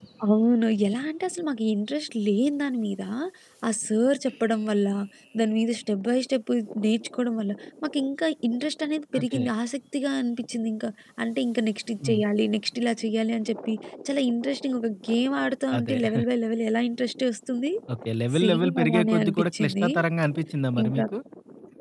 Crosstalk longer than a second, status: present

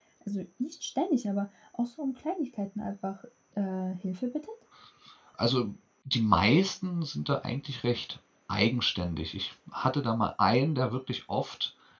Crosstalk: none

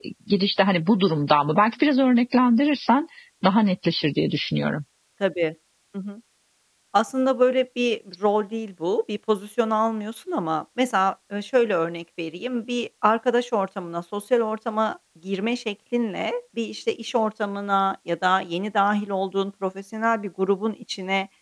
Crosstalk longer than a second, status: none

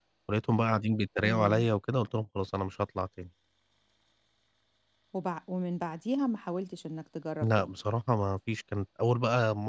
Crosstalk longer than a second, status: none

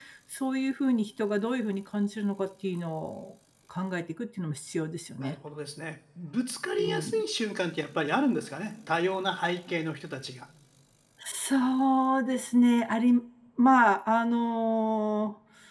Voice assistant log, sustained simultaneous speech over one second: none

